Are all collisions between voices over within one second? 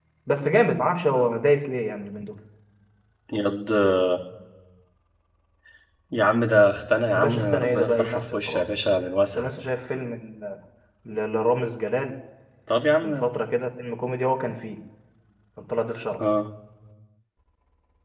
No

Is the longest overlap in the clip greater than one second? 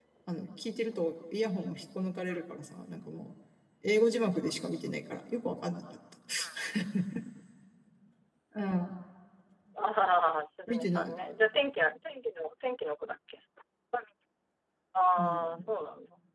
No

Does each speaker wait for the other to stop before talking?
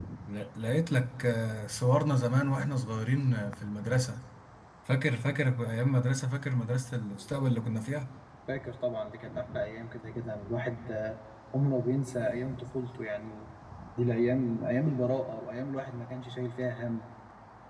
Yes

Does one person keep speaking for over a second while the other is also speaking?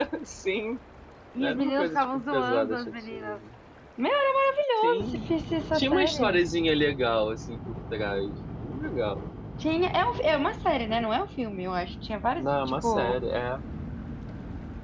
Yes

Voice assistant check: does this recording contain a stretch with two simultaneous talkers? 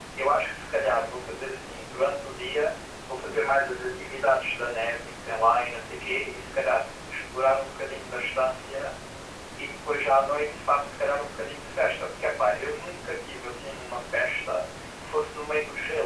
No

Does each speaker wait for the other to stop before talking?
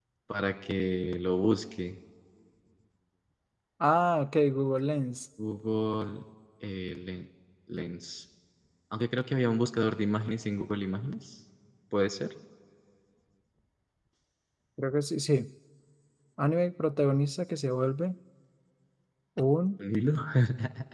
Yes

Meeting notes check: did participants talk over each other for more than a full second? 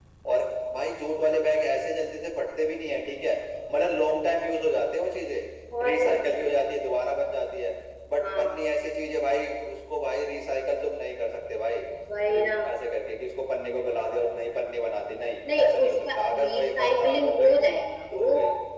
Yes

